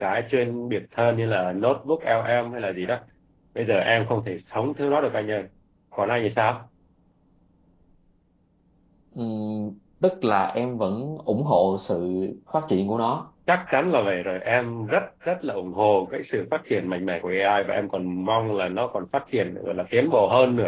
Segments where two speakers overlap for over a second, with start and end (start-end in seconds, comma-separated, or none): none